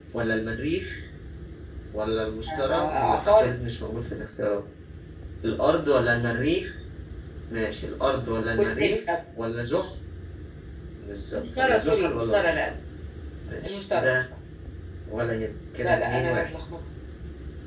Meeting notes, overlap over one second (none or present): present